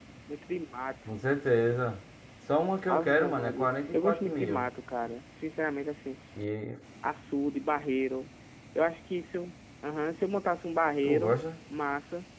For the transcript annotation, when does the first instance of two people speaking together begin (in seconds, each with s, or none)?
2.9 s